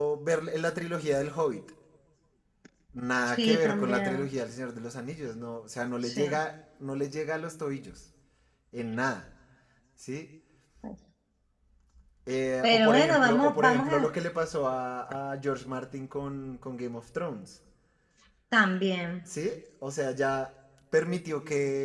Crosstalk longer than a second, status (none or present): present